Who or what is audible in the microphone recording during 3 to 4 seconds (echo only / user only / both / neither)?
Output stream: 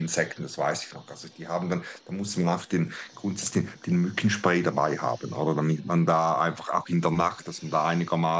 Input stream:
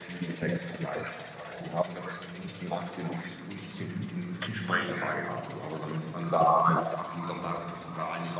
echo only